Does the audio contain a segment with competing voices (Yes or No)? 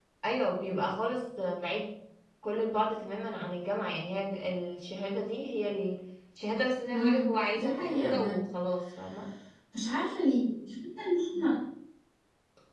Yes